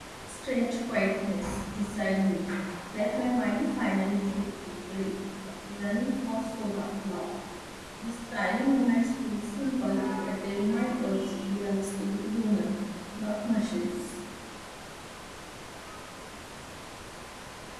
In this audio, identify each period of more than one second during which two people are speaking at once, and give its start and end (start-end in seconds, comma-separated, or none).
none